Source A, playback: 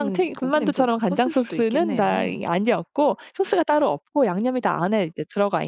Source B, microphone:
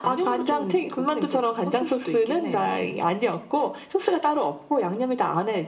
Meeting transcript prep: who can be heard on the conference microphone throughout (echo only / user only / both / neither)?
echo only